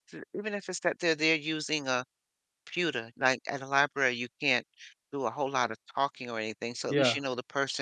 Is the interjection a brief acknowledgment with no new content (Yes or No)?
Yes